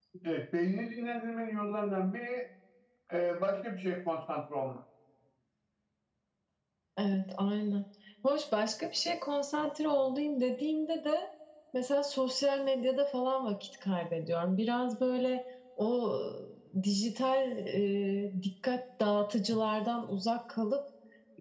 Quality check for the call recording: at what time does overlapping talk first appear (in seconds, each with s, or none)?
none